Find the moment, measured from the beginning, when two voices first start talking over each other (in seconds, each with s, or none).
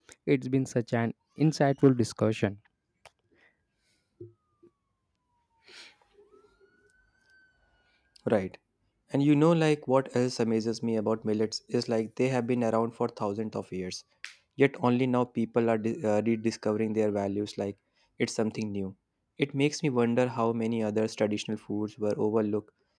none